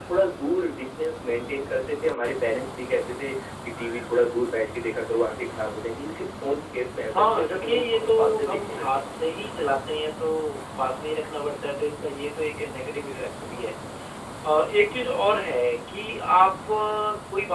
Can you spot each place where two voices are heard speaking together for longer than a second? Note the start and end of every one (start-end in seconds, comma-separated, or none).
7.1-9.2